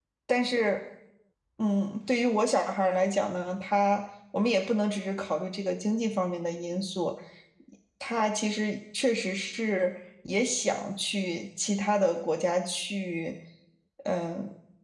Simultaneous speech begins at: none

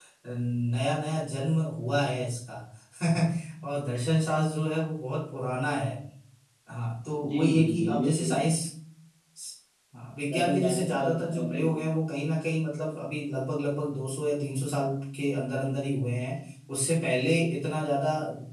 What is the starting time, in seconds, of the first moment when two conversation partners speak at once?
7.3 s

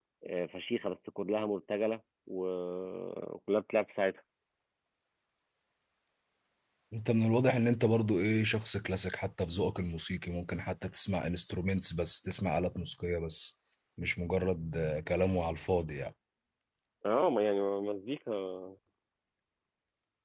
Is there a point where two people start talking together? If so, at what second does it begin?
none

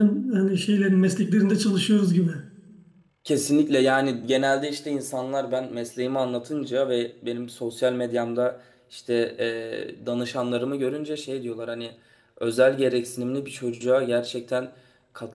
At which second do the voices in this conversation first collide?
none

